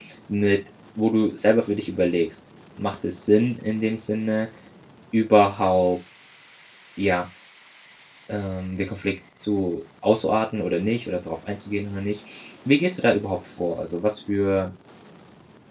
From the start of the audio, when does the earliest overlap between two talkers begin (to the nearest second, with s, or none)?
none